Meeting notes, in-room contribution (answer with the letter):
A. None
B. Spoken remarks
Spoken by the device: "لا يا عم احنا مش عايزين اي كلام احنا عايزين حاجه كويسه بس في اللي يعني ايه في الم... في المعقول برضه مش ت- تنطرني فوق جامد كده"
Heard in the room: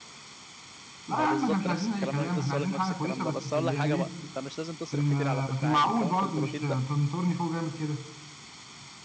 B